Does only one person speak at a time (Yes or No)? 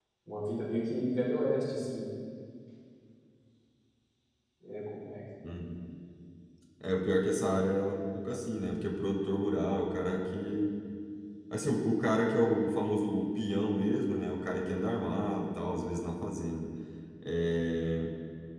Yes